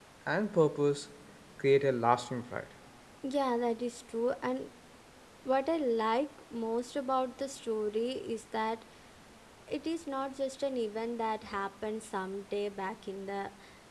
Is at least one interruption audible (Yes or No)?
No